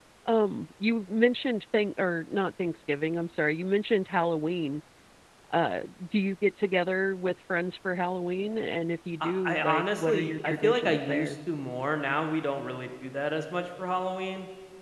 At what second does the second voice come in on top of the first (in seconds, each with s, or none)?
9.2 s